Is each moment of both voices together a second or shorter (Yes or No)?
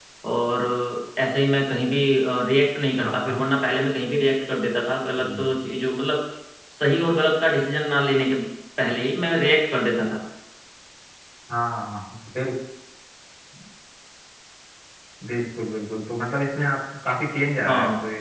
Yes